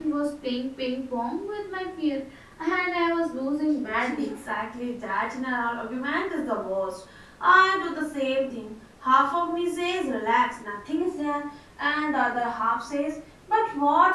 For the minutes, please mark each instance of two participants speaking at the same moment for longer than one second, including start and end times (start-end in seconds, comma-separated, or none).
none